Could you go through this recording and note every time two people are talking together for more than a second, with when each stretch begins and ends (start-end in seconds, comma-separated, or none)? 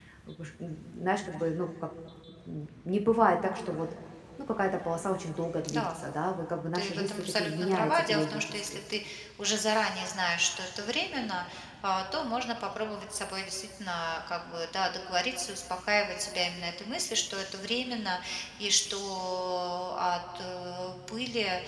6.8-8.6